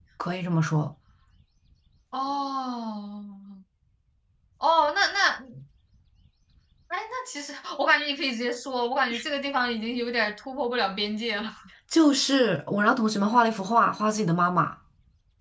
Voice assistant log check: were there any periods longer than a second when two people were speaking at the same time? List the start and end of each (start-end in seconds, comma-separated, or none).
none